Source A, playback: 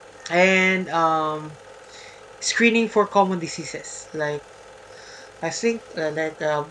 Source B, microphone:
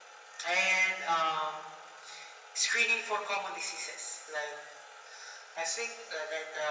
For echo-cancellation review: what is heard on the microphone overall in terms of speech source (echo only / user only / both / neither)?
echo only